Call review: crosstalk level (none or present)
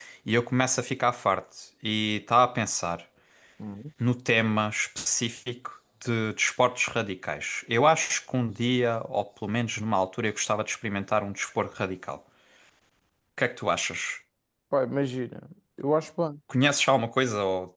none